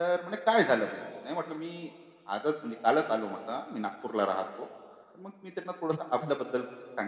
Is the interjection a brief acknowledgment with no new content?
Yes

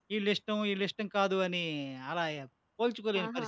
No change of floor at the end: No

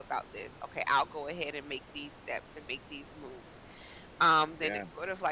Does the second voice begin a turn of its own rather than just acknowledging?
No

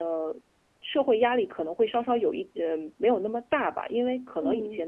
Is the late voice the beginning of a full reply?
No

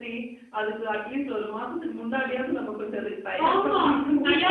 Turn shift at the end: Yes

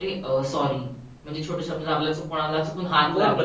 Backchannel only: No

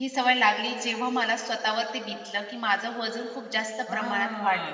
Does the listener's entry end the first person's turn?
Yes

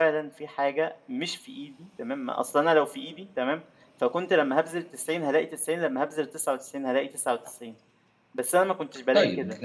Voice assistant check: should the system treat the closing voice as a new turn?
Yes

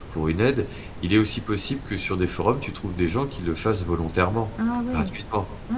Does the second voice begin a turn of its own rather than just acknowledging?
Yes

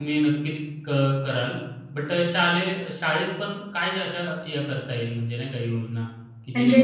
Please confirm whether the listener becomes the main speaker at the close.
No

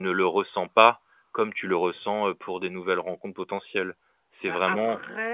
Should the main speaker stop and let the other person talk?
Yes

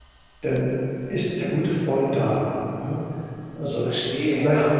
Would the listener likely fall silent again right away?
No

